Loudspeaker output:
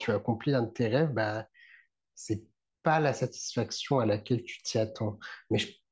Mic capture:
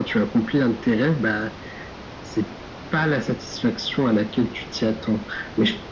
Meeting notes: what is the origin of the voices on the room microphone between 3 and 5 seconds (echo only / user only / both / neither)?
echo only